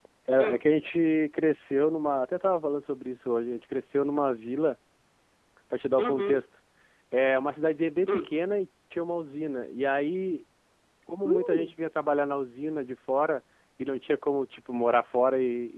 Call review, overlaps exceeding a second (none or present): none